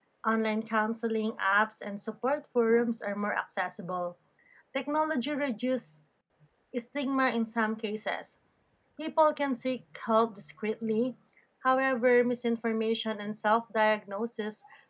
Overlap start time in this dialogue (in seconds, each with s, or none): none